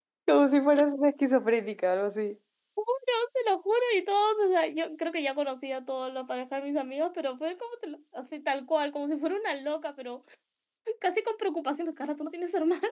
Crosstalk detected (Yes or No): No